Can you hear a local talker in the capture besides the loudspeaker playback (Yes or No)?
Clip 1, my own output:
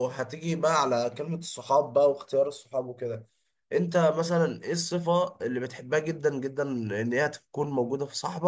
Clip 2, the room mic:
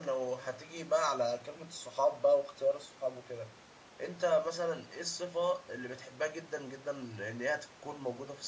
No